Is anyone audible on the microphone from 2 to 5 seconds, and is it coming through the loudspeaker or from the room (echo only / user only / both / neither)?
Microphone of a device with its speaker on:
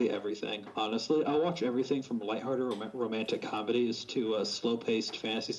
echo only